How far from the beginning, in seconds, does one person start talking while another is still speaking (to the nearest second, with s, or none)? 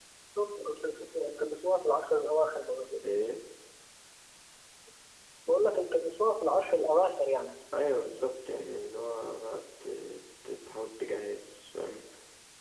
none